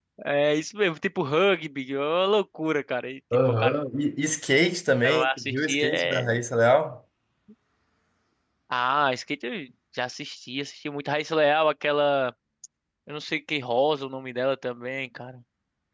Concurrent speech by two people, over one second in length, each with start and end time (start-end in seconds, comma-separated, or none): 5.0-6.4